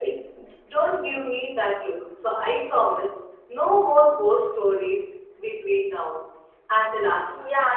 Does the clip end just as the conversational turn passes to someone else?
Yes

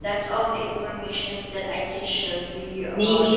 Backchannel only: No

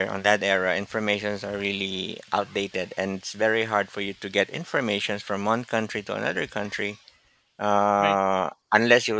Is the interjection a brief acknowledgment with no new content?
Yes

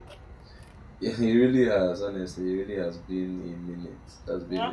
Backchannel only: No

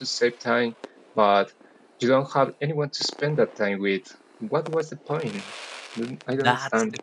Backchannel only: No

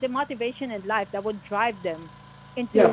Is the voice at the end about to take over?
Yes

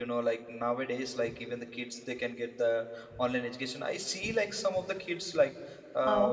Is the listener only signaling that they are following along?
Yes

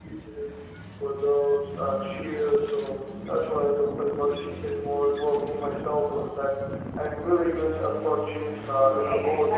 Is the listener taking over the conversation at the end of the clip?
Yes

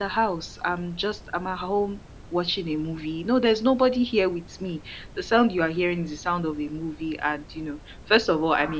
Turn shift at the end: No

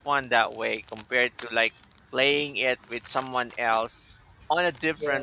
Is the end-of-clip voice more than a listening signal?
No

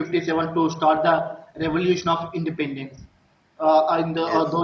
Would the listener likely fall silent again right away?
Yes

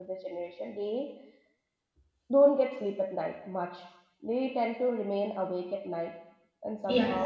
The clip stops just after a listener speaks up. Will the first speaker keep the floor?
No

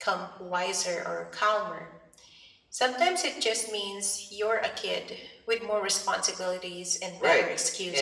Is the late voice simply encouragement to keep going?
No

